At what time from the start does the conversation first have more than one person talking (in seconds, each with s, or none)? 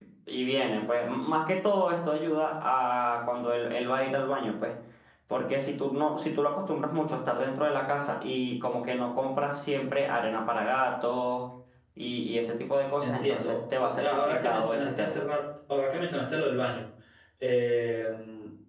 13.0 s